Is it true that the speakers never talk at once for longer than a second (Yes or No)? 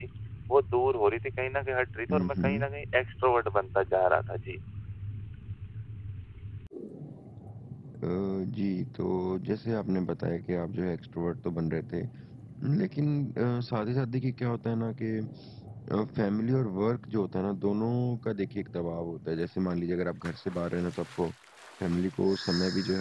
Yes